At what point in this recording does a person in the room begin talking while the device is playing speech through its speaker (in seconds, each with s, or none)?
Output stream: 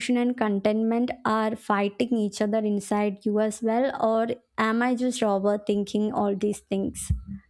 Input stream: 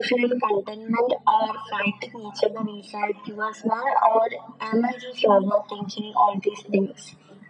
none